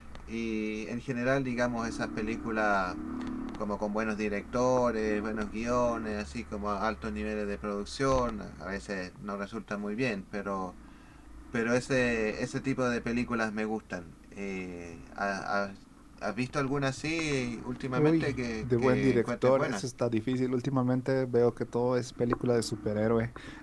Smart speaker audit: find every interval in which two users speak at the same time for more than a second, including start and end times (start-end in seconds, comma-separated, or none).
18.0-19.8